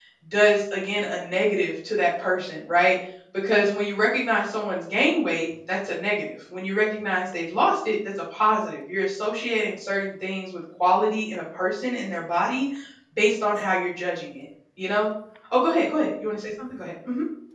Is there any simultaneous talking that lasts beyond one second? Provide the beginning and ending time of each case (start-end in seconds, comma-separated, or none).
none